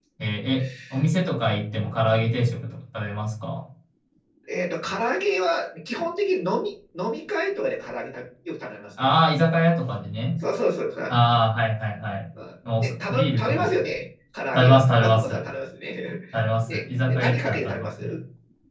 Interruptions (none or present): present